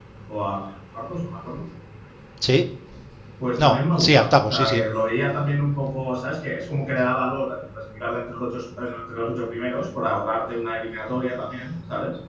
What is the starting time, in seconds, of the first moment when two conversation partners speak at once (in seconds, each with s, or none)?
3.6 s